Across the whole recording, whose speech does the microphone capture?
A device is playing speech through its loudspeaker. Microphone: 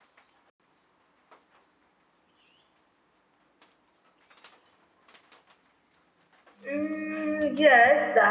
user only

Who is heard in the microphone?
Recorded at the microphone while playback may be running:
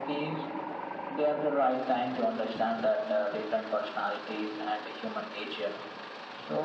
echo only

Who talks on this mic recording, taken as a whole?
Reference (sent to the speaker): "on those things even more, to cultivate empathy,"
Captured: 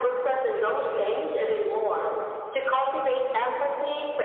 echo only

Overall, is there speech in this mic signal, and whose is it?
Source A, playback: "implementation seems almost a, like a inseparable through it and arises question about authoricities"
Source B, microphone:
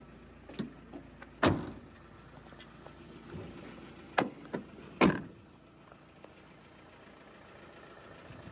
neither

